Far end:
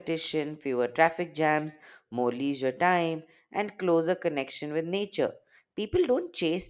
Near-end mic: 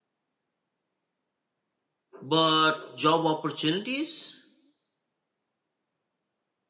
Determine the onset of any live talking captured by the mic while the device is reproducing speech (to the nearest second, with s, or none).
2 s